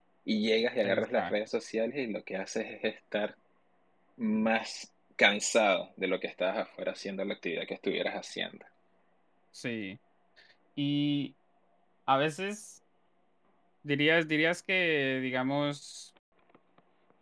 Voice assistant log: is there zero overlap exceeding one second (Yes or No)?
Yes